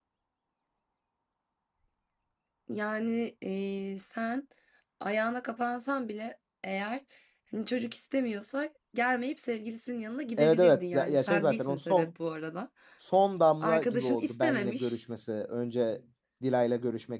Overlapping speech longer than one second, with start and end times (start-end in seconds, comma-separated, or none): 10.4-12.1, 13.6-15.0